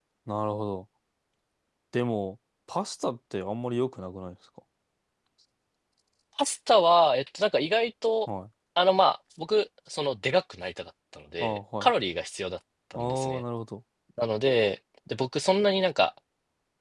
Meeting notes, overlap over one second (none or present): none